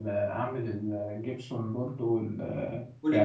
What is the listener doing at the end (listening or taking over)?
listening